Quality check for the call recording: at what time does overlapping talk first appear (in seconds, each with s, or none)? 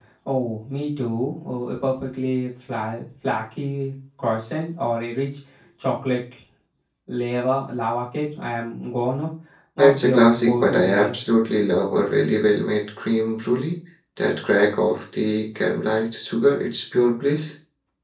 9.8 s